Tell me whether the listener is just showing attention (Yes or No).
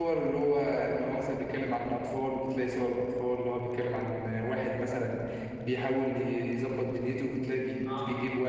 Yes